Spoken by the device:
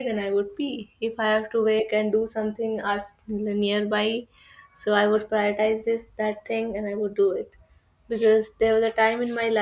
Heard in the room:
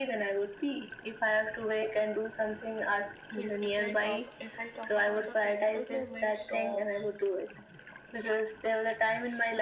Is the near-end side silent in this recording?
No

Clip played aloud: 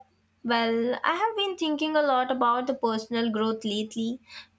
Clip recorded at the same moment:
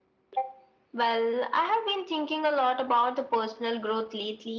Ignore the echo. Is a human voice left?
No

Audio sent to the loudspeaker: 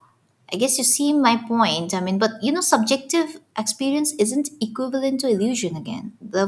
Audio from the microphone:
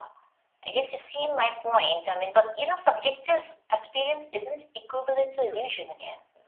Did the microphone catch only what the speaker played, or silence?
Yes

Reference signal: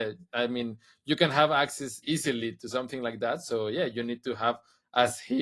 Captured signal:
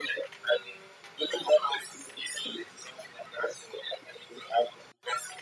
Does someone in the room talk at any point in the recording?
No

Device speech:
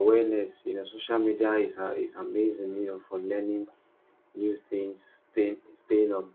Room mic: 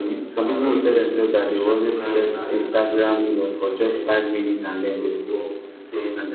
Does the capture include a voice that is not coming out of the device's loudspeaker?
Yes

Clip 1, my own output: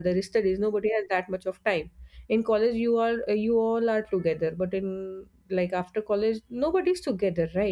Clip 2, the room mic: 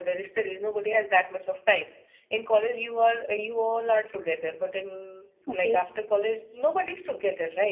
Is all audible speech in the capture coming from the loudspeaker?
No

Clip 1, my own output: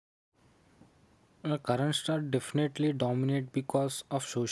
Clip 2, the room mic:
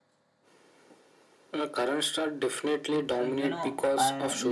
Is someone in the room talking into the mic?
Yes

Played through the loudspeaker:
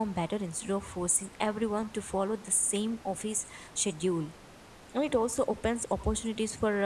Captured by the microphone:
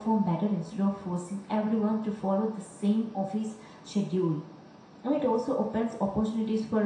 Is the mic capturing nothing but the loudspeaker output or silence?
Yes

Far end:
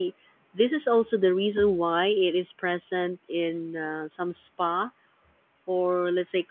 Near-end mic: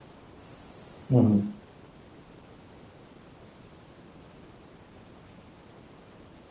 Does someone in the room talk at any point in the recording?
Yes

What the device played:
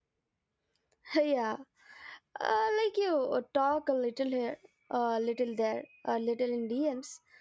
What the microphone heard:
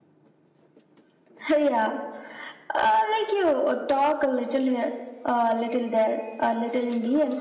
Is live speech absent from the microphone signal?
Yes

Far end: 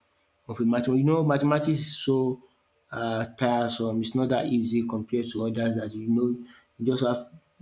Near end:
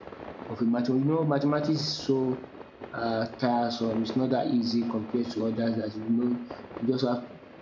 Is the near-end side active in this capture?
No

